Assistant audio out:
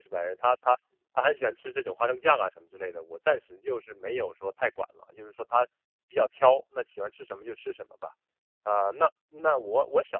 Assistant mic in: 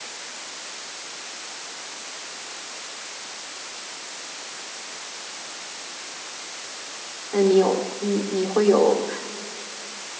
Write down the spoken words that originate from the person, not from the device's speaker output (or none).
那你有你你会有